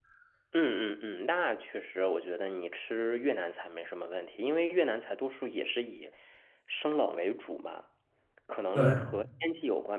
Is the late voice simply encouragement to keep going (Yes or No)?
Yes